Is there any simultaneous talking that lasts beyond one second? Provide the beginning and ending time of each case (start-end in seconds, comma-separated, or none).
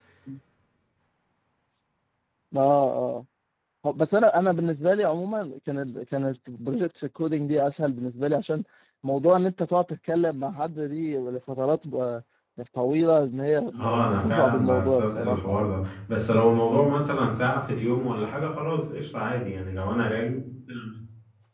13.8-15.6